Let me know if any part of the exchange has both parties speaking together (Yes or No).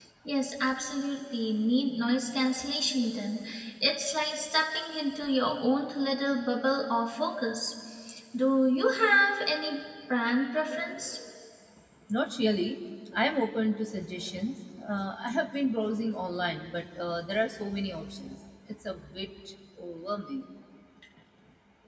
No